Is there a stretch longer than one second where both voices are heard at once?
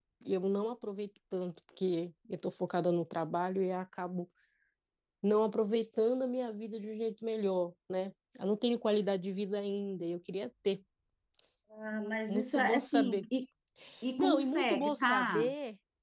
Yes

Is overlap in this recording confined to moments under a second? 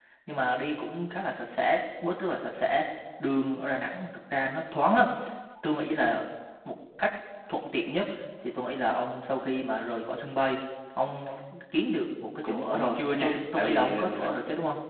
No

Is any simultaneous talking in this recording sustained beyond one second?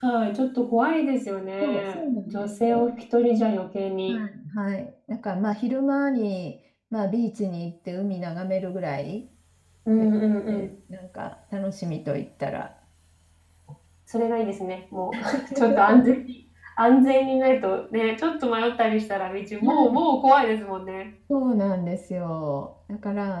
Yes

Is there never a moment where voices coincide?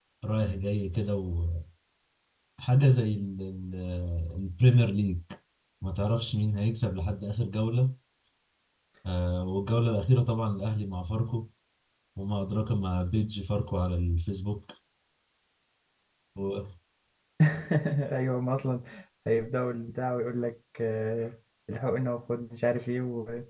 Yes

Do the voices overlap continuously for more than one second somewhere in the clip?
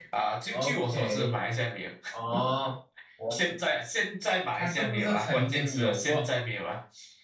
Yes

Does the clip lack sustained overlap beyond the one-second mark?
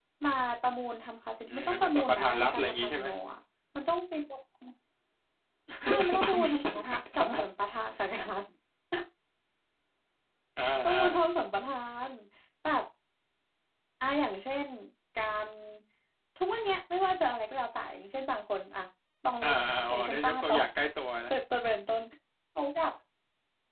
No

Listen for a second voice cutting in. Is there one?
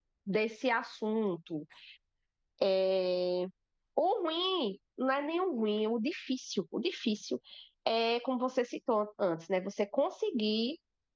No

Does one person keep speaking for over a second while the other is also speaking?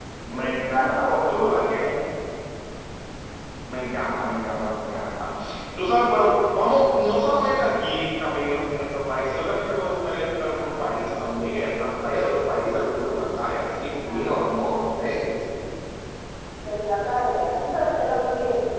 Yes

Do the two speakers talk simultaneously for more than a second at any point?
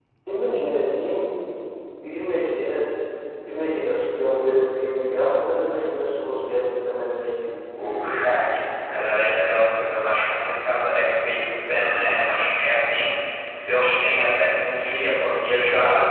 Yes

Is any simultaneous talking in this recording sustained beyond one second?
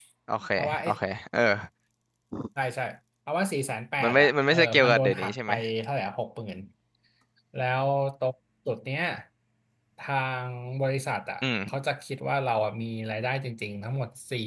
Yes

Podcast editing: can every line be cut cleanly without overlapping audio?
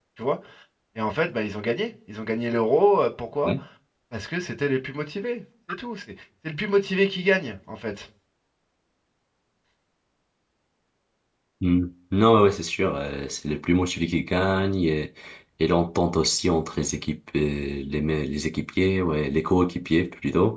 Yes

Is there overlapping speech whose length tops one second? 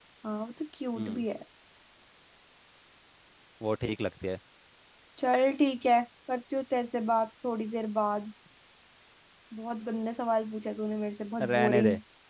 No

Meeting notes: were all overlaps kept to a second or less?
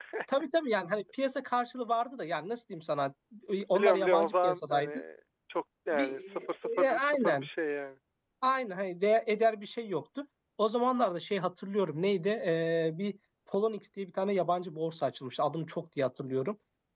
No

